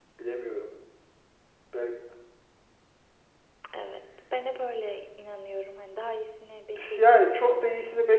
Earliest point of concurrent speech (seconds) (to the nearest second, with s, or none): 7 s